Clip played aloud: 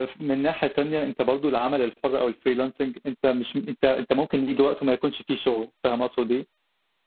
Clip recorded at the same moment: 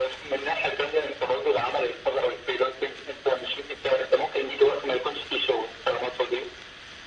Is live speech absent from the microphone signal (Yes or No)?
Yes